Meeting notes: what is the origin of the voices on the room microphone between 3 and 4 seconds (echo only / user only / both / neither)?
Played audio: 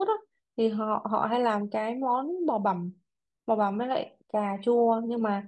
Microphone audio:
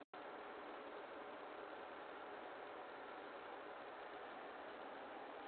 neither